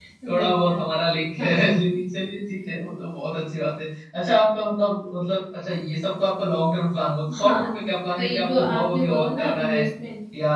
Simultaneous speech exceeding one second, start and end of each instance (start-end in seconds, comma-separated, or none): 8.2-9.8